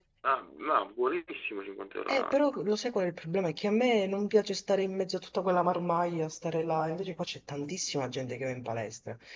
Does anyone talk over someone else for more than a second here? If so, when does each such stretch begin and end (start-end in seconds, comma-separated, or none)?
none